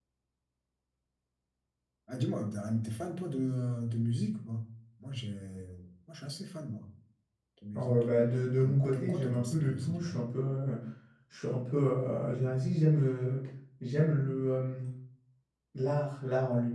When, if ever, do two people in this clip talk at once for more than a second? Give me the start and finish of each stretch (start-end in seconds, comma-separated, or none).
8.6-10.2